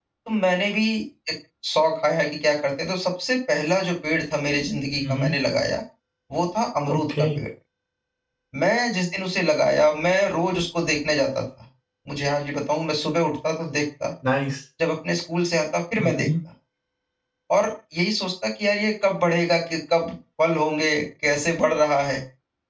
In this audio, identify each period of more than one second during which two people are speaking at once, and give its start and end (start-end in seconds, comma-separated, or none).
none